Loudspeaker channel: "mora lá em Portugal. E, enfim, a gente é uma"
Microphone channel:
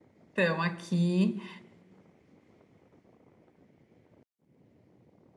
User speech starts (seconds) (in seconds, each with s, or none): 0.3 s